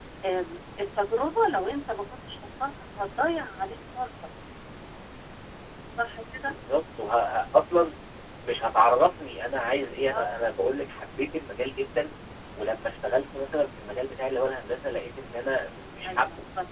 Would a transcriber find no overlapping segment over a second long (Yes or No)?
Yes